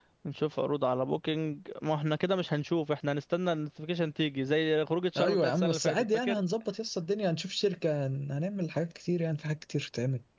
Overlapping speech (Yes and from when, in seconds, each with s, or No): Yes, from 5.2 s